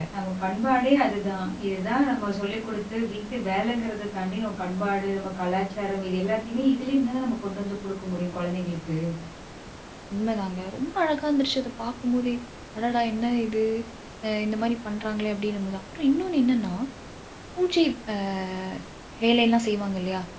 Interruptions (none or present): none